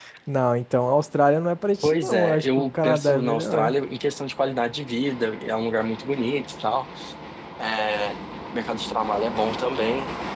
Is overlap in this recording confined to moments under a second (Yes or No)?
No